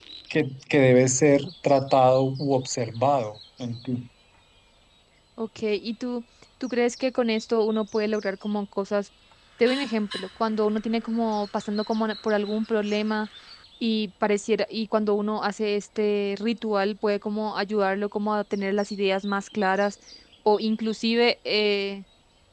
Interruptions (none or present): none